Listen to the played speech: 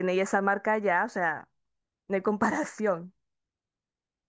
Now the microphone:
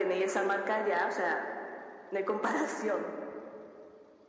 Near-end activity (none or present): none